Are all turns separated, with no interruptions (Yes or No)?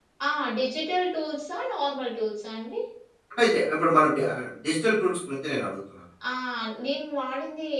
Yes